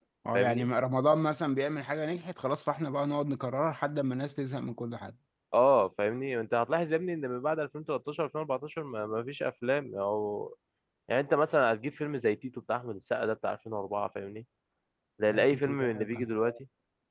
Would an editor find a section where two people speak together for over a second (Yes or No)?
Yes